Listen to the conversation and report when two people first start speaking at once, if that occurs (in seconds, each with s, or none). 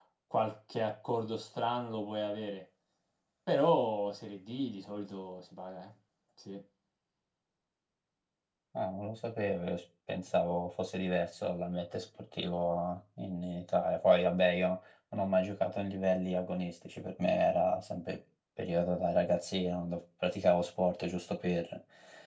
none